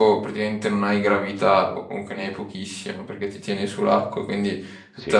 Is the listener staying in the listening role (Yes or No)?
Yes